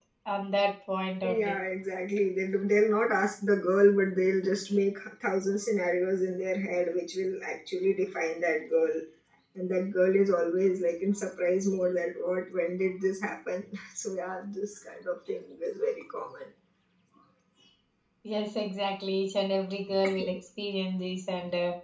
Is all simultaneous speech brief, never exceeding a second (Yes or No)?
Yes